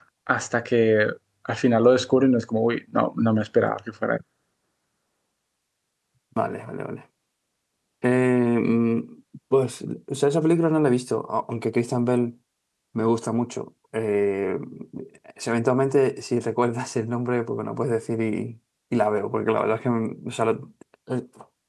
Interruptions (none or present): none